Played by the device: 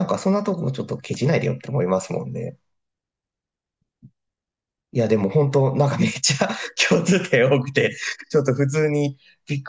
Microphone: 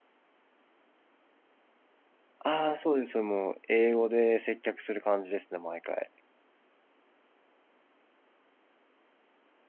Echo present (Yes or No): No